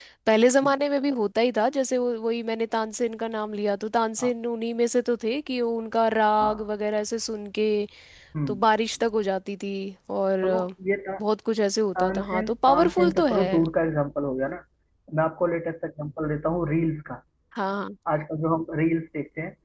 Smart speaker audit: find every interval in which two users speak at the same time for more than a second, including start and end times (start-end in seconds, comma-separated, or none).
12.0-13.5